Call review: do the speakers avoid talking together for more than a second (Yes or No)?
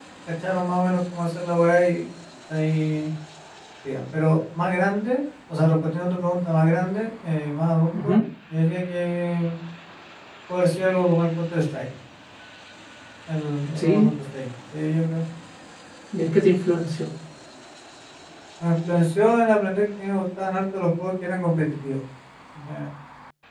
Yes